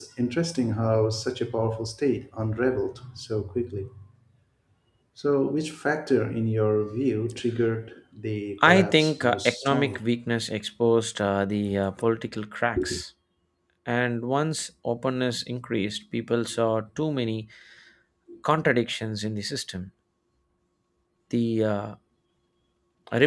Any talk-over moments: Yes, from 8.6 s

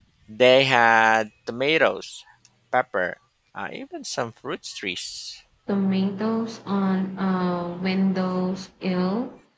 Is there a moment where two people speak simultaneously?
No

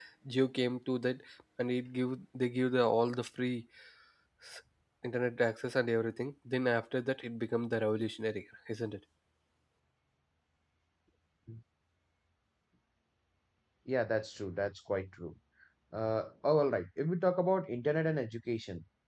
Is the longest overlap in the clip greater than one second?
No

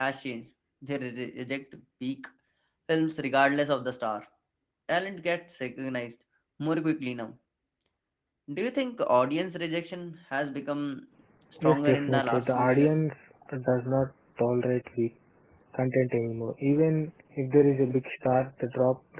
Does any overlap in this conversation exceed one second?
Yes, from 11.6 s

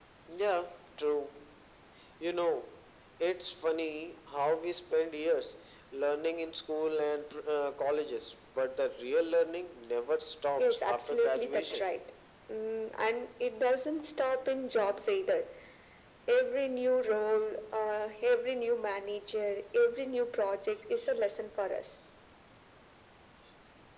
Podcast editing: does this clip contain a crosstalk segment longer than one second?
Yes, from 10.6 s

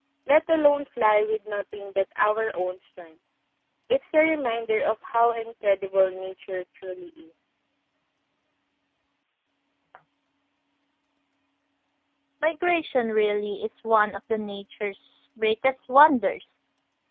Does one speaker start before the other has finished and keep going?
No

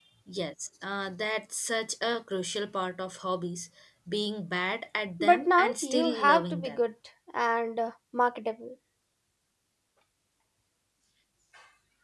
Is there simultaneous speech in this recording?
Yes, from 5.2 s

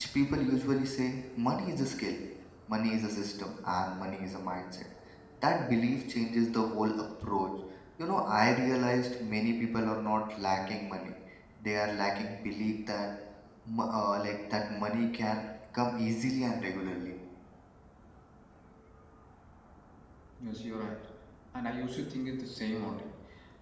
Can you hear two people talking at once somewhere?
No

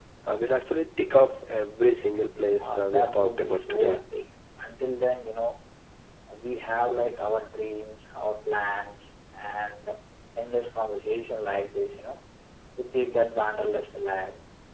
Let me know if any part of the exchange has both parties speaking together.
Yes, from 2.6 s

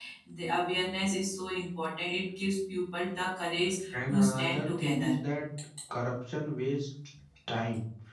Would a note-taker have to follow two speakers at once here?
Yes, from 3.9 s

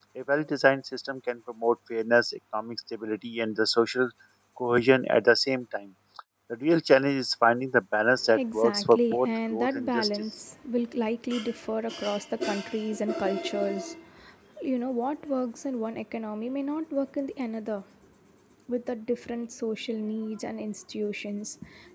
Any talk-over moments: Yes, from 8.2 s

